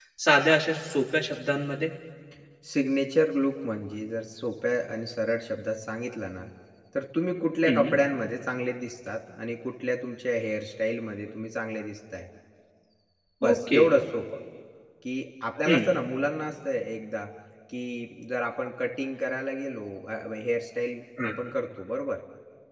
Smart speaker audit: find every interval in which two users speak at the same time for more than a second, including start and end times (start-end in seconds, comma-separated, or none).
none